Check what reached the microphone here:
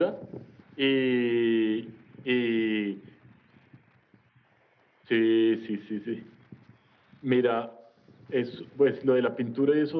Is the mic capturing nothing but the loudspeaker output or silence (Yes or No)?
Yes